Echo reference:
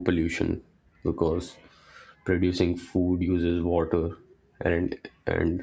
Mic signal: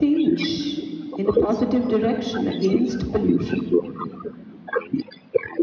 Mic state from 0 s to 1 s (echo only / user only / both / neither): both